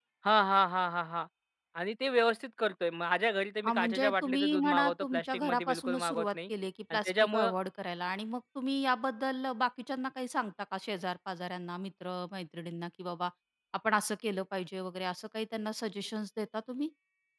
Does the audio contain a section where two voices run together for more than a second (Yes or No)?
Yes